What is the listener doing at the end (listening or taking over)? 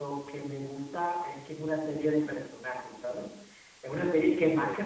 listening